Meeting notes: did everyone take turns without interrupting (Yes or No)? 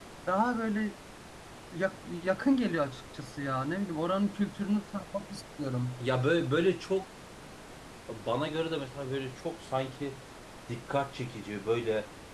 Yes